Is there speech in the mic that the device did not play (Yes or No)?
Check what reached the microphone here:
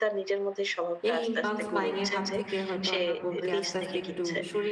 Yes